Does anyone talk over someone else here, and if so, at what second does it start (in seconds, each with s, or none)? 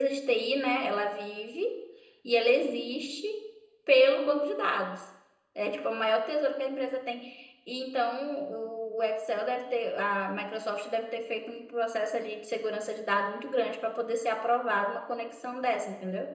none